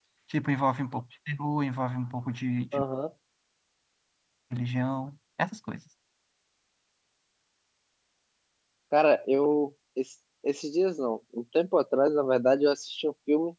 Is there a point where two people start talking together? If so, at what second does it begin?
none

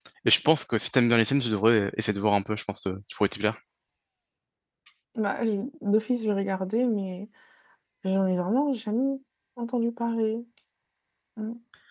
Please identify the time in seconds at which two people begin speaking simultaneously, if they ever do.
none

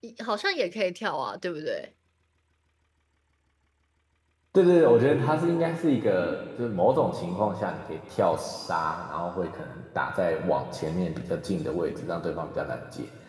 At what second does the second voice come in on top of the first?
none

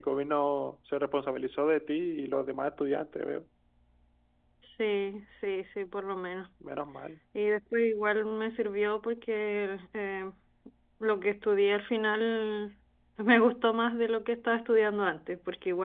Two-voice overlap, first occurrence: none

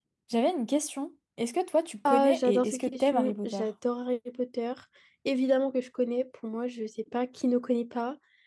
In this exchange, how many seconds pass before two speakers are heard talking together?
2.0 s

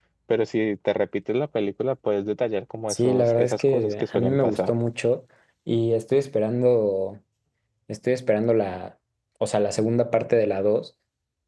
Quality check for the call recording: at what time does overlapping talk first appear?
2.9 s

